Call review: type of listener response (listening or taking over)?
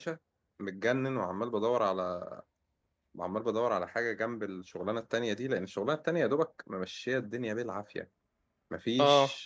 listening